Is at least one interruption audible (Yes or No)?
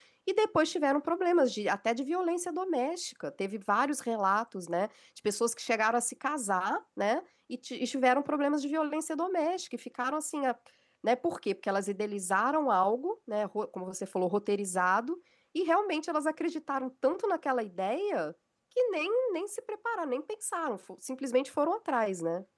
No